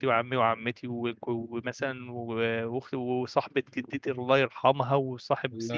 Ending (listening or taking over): listening